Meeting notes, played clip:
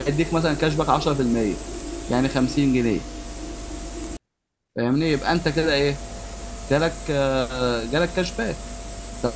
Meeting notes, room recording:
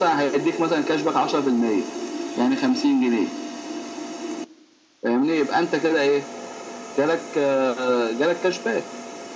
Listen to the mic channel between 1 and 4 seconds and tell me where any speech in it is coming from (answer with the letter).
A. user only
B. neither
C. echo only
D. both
C